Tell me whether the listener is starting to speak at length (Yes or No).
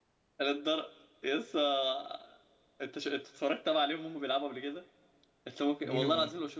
No